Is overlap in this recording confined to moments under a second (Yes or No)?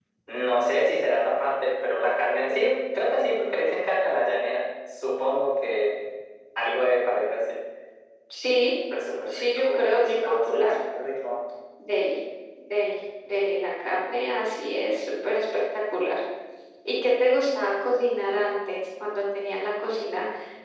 No